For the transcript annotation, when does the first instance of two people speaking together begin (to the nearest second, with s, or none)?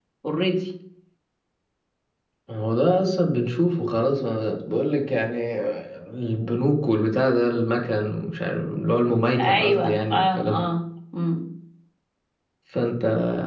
9 s